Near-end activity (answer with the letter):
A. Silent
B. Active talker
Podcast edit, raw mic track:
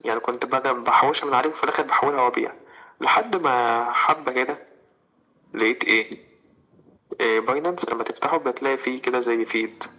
A